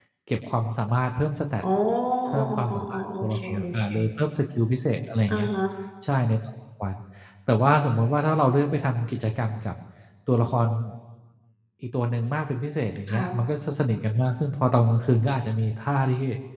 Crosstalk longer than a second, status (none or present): present